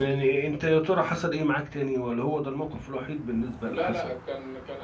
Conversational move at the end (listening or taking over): taking over